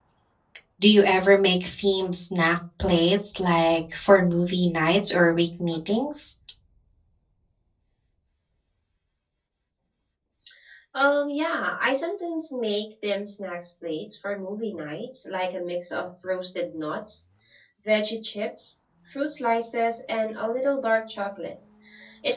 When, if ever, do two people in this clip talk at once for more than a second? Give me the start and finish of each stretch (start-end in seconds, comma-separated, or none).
none